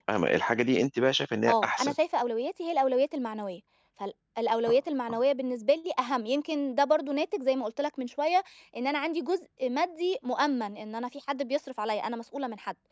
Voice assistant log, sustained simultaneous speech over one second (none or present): none